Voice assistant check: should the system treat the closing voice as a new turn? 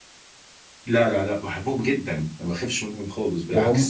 Yes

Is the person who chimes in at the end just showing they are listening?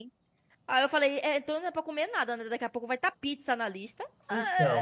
No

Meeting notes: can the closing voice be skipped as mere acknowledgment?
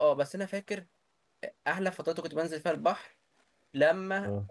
Yes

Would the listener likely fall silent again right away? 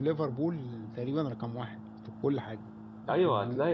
No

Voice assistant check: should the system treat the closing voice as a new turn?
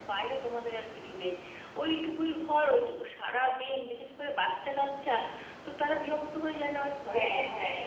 Yes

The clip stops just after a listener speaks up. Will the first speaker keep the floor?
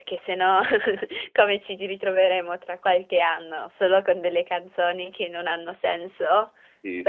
No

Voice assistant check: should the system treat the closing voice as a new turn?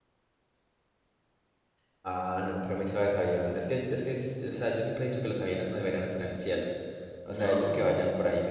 No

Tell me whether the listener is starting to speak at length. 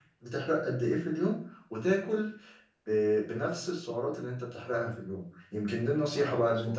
No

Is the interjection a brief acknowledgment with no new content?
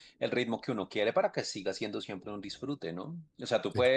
Yes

